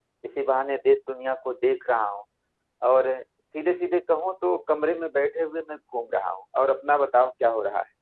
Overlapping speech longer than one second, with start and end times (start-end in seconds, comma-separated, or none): none